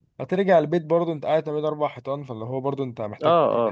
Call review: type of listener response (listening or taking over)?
taking over